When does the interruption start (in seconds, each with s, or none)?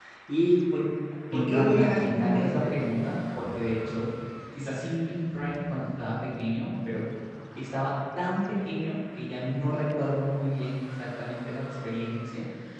1.3 s